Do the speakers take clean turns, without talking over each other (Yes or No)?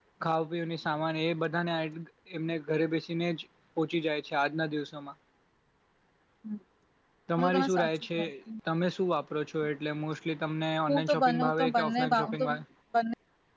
No